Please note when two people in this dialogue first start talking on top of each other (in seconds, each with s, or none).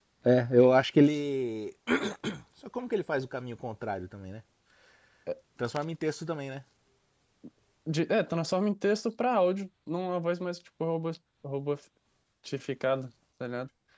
none